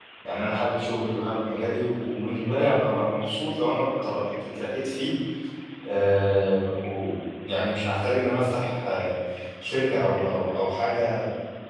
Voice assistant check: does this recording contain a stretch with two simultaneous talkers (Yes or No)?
No